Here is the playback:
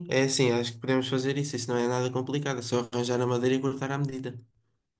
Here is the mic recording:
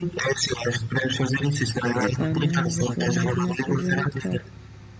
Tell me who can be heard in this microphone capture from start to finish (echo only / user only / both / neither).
both